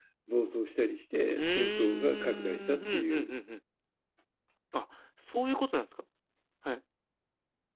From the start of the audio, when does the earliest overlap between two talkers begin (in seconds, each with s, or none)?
1.4 s